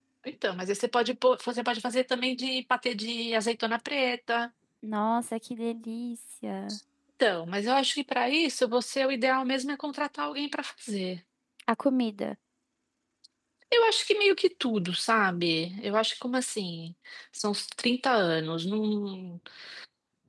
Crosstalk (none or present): none